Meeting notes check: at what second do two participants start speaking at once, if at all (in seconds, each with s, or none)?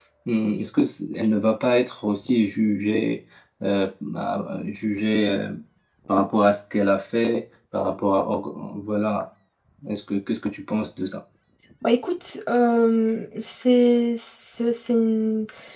none